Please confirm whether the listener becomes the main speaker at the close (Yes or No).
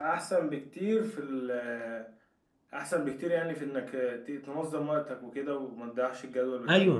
Yes